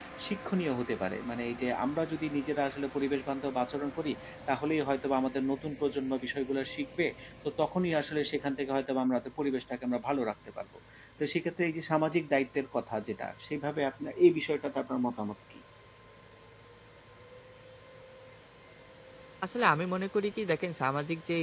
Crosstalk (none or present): none